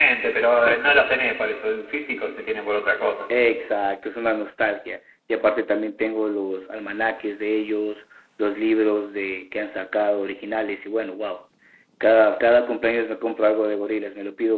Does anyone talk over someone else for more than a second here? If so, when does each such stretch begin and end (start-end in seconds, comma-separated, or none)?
none